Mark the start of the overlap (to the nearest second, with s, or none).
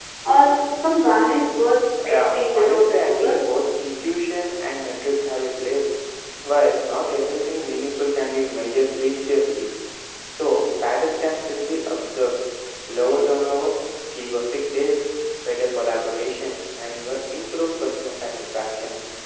2 s